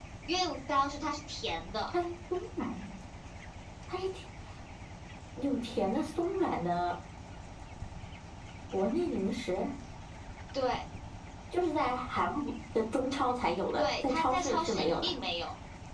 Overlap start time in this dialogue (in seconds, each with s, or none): 13.8 s